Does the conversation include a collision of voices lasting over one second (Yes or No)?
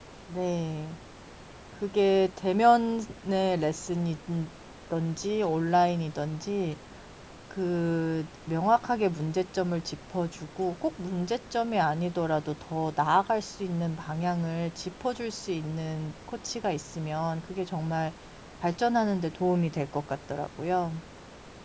No